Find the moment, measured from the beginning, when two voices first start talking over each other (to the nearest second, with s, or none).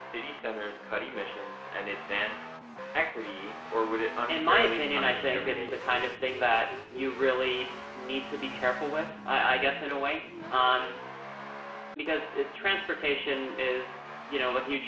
4 s